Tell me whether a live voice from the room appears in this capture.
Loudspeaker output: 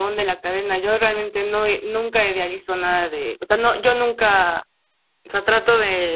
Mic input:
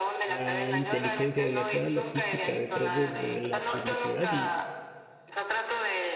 Yes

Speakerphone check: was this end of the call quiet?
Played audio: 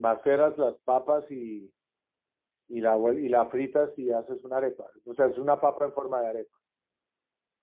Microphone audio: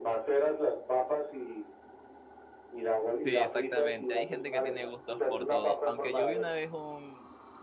No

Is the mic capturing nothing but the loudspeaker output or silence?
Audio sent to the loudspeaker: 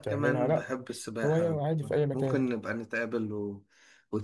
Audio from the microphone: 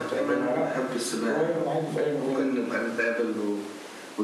Yes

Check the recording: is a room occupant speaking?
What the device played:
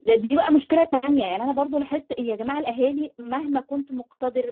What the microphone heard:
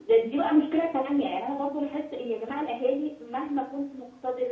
No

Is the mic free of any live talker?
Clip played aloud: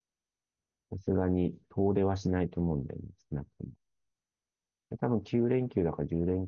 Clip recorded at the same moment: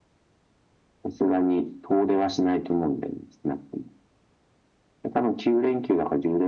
Yes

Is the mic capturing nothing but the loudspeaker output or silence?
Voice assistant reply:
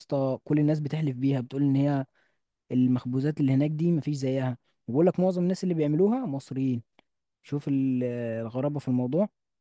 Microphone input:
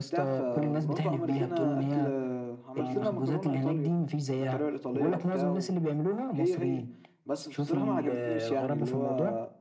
No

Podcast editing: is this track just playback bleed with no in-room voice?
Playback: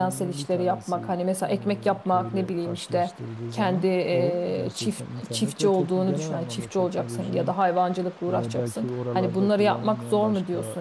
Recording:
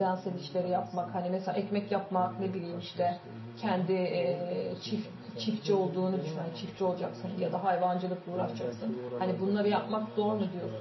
Yes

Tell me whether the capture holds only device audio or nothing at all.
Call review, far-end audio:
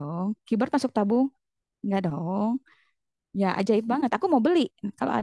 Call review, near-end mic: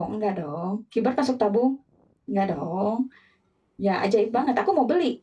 Yes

